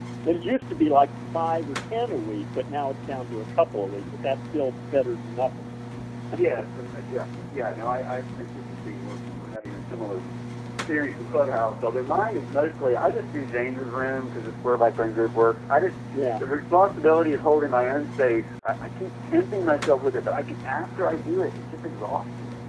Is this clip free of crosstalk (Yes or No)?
Yes